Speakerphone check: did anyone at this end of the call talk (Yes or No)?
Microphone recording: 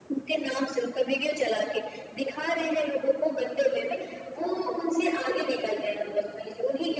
No